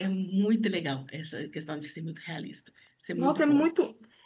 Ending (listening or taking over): taking over